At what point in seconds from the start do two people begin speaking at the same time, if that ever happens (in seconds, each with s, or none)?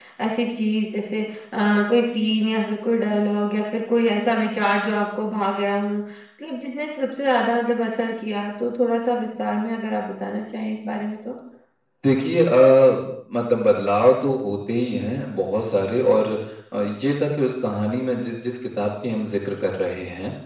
none